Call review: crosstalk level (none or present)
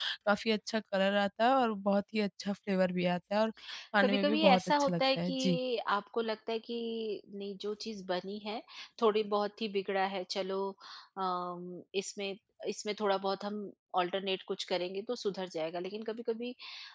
present